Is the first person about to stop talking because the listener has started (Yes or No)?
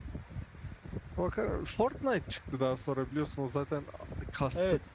No